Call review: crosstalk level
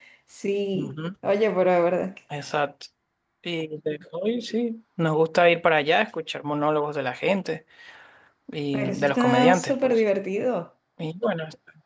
present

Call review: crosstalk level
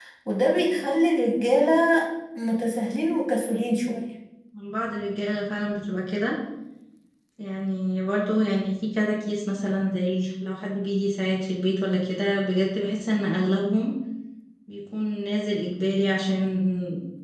none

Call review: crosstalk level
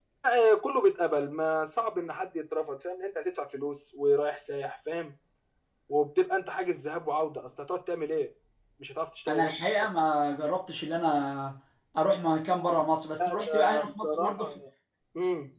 present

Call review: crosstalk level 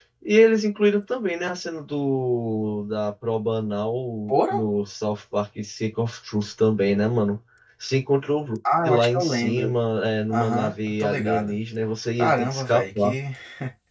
present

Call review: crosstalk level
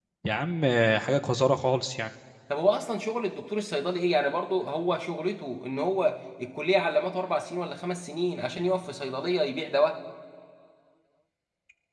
none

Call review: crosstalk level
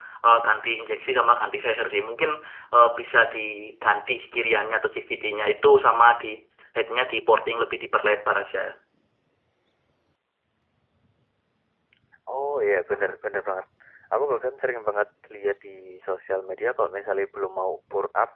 none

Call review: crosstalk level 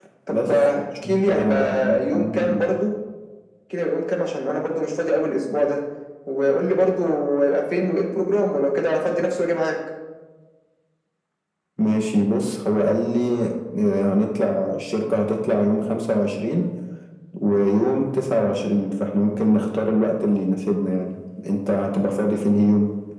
present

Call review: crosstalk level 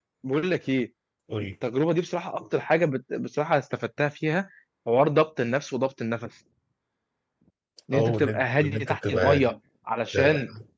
present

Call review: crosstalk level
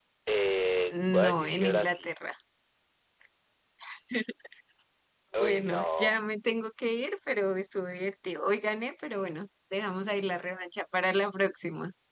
present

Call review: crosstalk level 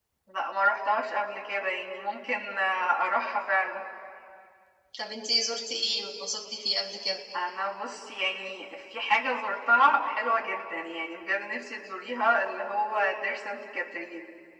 none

